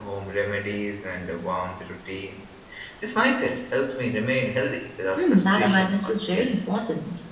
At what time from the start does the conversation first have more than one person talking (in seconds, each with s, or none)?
5.2 s